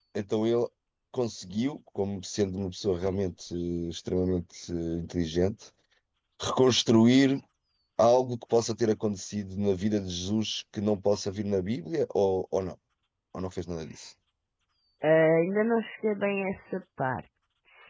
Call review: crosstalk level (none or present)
none